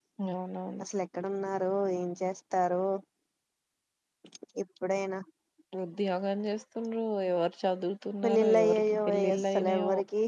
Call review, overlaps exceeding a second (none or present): present